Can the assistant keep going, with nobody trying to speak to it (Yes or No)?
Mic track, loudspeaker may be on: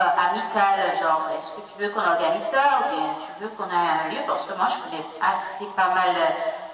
Yes